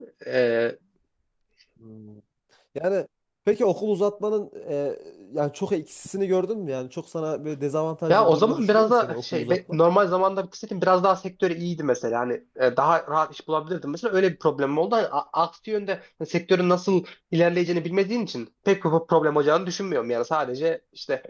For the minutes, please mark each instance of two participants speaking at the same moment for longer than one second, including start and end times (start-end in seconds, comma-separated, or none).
8.1-9.6